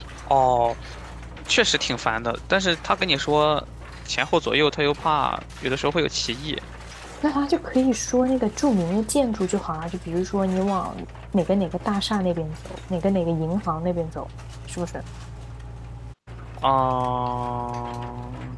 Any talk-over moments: No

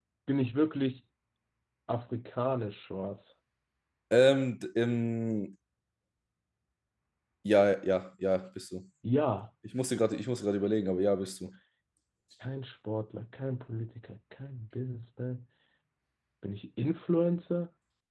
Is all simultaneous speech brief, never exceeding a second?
Yes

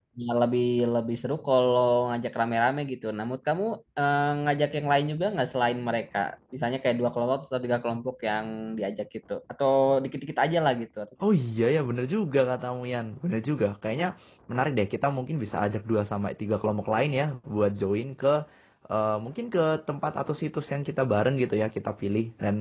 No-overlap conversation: Yes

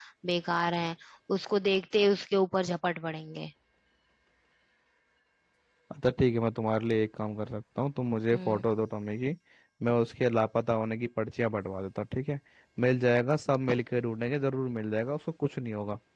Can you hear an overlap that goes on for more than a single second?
No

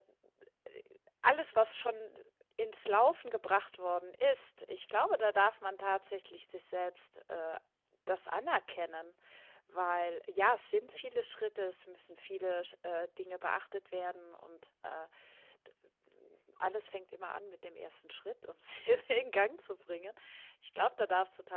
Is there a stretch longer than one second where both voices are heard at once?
No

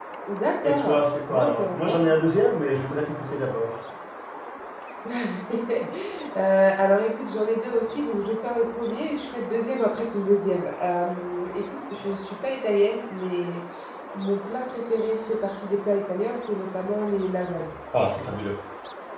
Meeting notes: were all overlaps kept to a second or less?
No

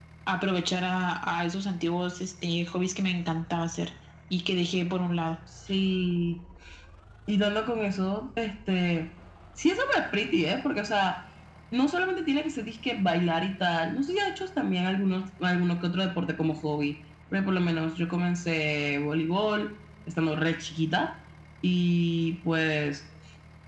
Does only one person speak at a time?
Yes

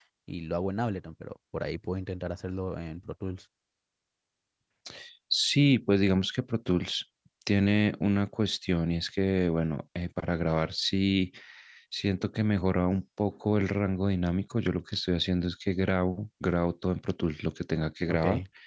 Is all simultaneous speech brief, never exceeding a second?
Yes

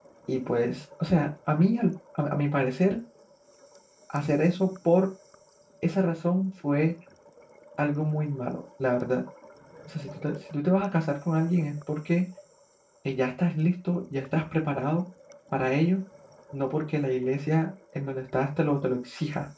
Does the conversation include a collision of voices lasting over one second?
No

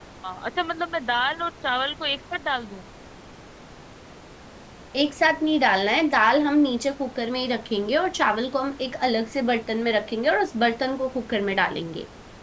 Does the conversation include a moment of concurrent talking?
No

